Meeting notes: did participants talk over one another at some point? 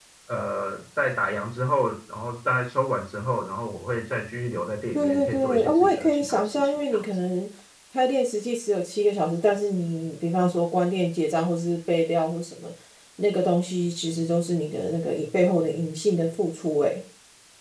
Yes, from 5.0 s

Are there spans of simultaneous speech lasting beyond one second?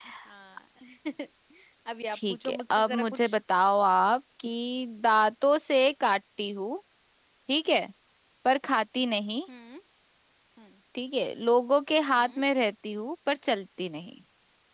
Yes, from 2.1 s

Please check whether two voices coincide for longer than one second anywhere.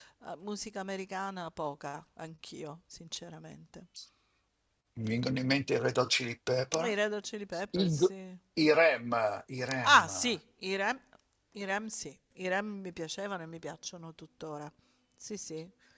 No

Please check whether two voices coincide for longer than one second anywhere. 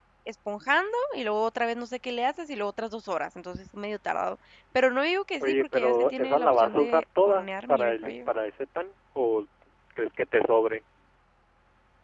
Yes, from 5.4 s

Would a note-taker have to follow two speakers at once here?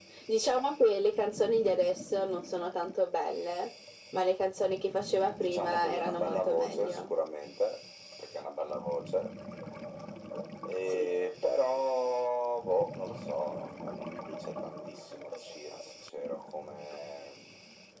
Yes, from 5.4 s

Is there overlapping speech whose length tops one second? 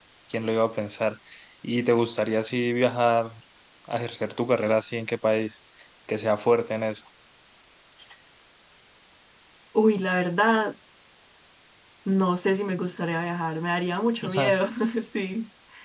No

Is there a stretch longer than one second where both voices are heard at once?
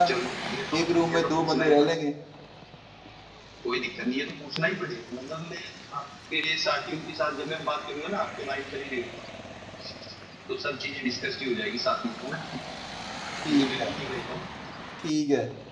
Yes, from 0.7 s

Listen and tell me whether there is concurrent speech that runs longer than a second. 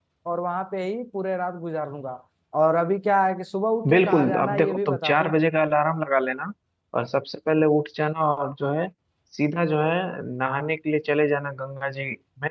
Yes, from 3.8 s

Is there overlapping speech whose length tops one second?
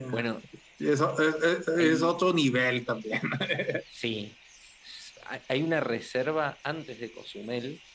No

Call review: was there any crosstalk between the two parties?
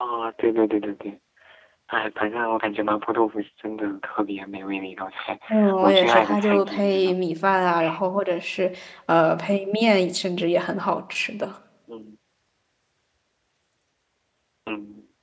Yes, from 5.8 s

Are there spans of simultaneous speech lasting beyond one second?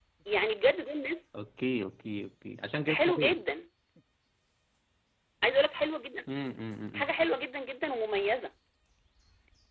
No

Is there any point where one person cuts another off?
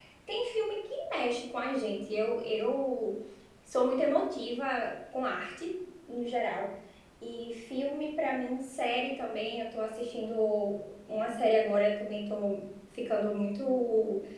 No

